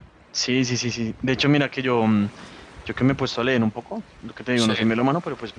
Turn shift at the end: No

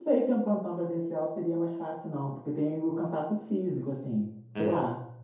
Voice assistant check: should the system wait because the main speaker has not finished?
Yes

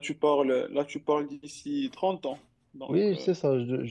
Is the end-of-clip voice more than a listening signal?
Yes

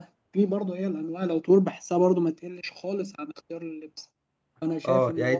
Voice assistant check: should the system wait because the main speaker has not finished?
No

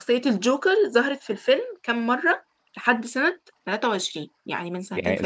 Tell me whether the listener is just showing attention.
No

